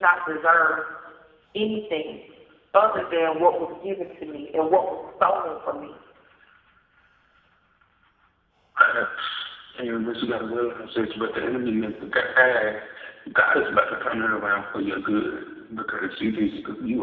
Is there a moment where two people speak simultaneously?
No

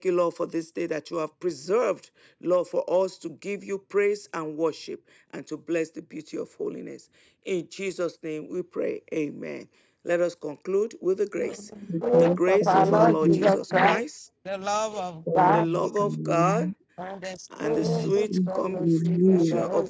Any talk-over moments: Yes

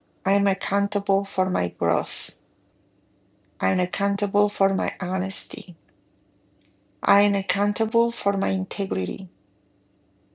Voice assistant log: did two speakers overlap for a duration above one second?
No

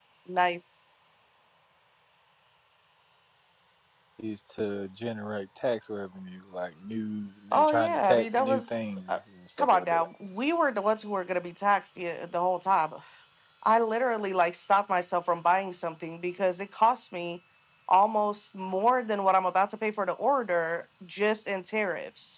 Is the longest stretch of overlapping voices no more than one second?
No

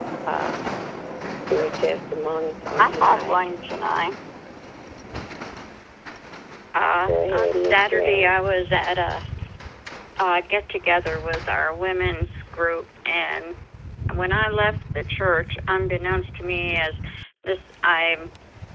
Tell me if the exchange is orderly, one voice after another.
No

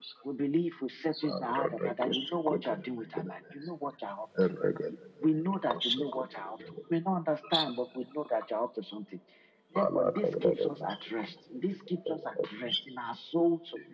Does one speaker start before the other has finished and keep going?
Yes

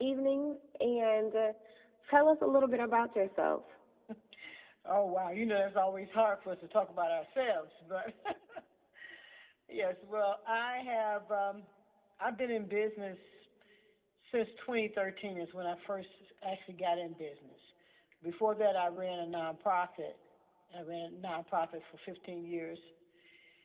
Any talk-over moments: No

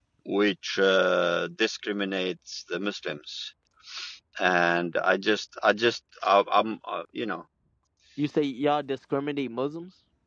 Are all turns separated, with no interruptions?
Yes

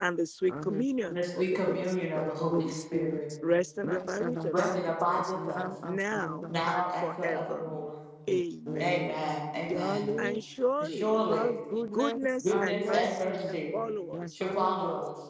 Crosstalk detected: Yes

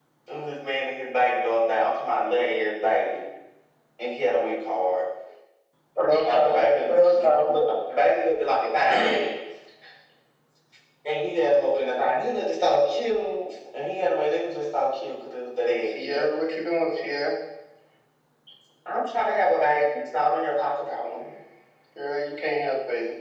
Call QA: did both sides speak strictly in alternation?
No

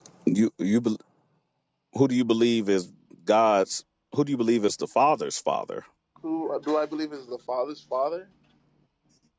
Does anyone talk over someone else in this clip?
No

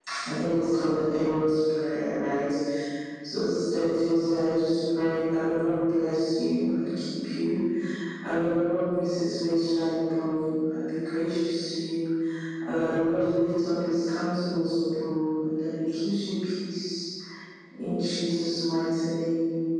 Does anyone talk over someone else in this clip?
No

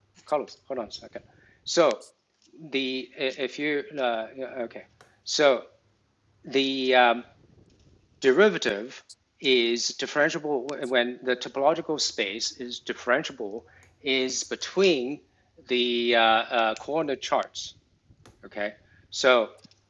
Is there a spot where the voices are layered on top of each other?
No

